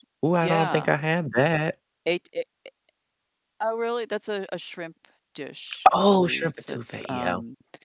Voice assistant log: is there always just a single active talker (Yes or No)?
No